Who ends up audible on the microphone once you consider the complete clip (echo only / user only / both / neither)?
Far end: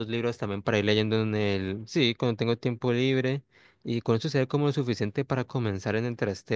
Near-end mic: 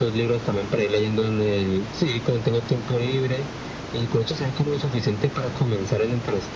echo only